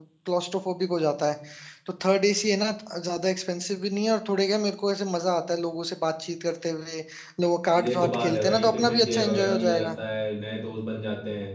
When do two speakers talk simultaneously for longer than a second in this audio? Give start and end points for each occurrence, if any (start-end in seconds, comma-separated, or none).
7.8-9.9